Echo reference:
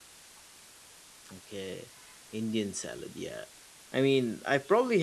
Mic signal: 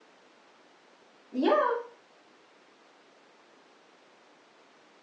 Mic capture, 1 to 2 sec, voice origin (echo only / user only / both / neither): user only